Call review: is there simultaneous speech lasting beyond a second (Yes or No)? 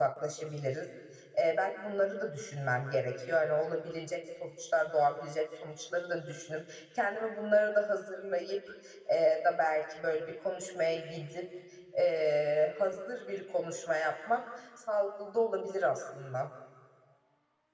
No